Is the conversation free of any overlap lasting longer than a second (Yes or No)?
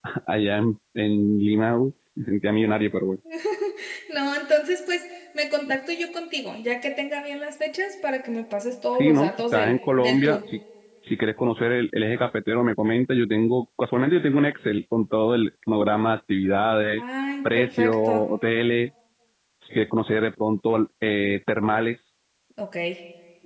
No